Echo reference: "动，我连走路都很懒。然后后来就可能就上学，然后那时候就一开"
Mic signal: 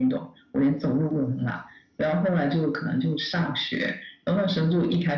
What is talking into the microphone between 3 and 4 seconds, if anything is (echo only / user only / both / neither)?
echo only